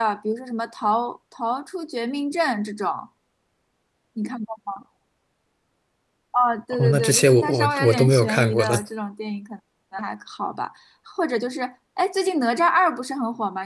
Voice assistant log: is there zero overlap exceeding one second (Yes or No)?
No